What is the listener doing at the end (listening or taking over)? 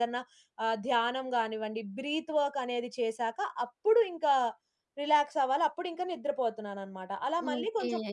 taking over